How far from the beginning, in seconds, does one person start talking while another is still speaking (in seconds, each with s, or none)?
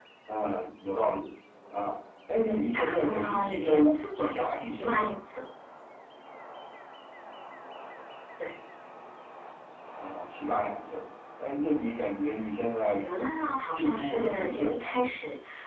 2.7 s